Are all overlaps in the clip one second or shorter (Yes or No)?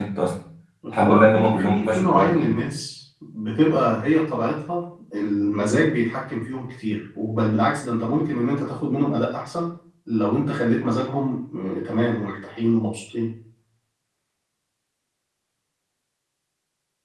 No